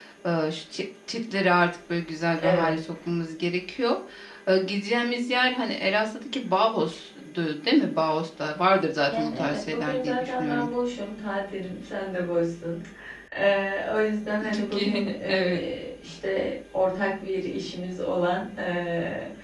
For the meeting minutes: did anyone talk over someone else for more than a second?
Yes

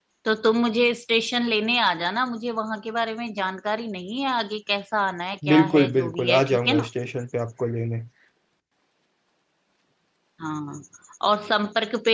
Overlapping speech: Yes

